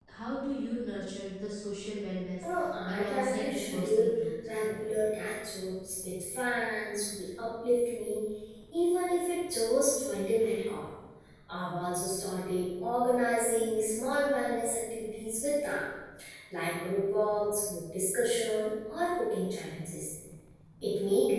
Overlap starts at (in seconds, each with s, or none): 2.9 s